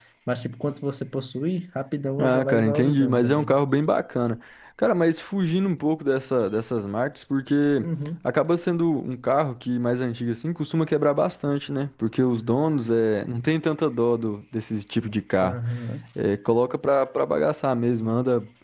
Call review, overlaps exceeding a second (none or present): present